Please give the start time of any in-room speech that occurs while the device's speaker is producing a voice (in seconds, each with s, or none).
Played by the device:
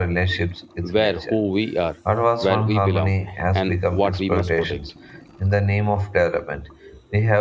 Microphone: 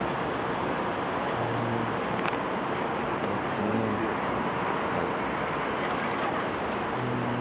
none